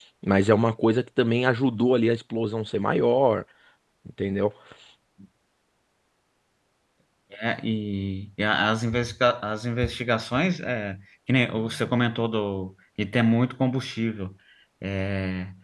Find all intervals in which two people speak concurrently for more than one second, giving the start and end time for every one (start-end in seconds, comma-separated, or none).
none